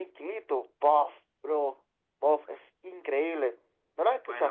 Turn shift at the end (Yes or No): Yes